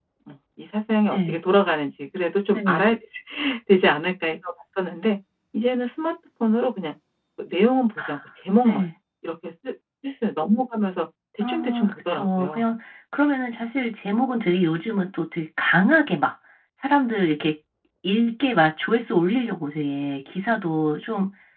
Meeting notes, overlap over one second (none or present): present